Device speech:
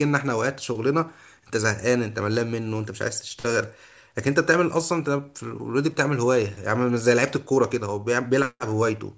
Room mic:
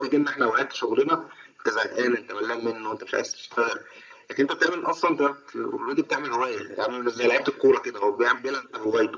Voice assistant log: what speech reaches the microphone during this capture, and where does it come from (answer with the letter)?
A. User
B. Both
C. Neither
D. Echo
D